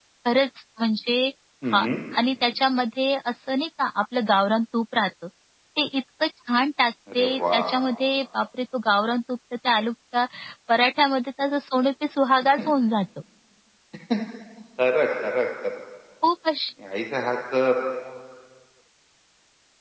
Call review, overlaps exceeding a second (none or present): none